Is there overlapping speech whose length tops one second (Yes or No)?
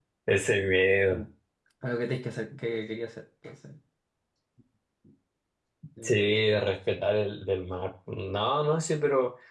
No